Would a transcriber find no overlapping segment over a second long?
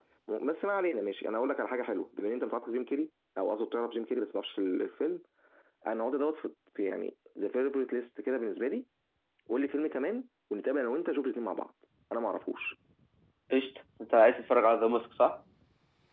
Yes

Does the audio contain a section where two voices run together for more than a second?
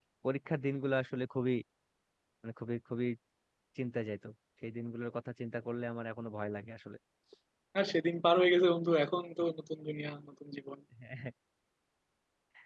No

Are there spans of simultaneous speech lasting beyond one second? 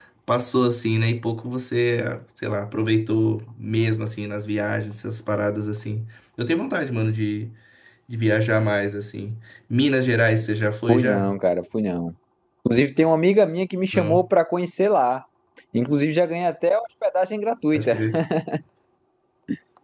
No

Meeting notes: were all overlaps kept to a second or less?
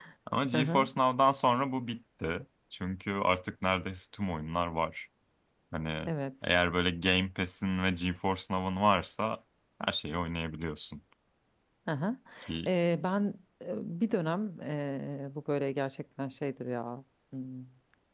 Yes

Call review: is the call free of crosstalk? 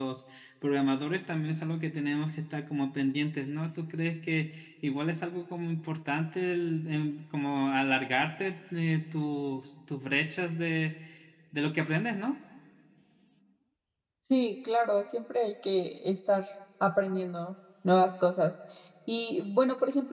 Yes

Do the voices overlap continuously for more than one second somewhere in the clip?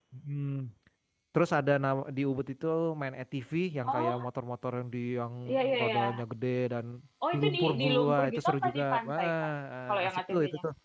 Yes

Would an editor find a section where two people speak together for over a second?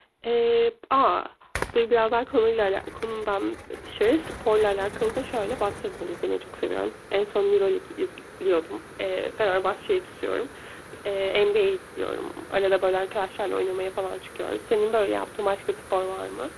No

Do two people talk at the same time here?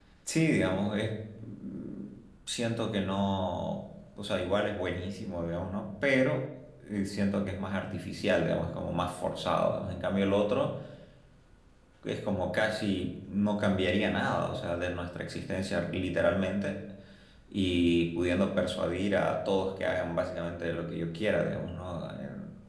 No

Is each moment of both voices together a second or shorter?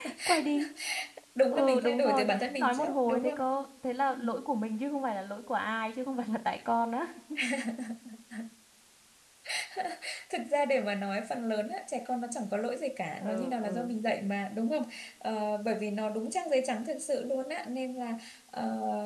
No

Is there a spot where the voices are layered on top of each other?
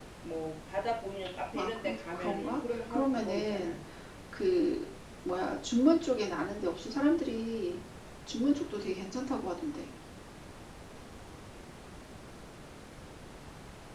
Yes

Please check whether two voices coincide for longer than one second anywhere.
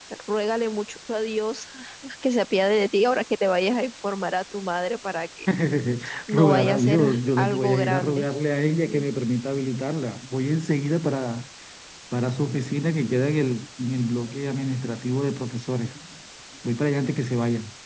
Yes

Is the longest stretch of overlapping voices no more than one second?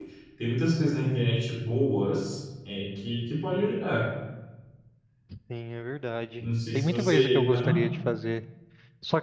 No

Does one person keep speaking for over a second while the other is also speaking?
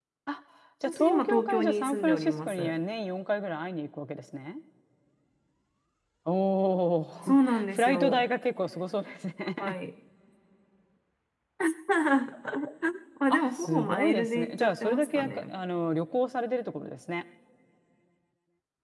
Yes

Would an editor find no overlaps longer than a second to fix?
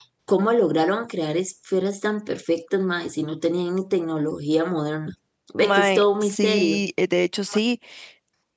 No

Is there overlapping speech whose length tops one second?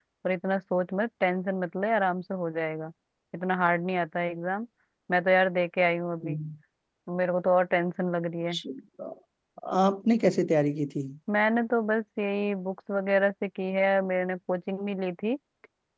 No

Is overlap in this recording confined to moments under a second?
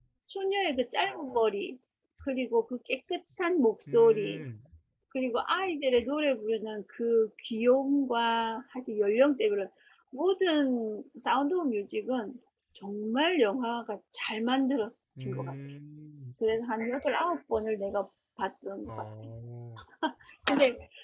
Yes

